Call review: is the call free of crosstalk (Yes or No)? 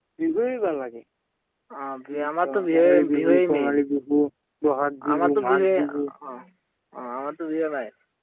No